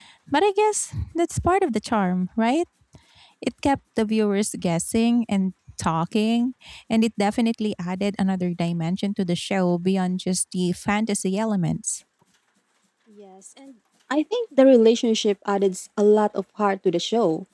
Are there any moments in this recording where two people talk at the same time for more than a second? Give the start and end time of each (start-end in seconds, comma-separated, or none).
none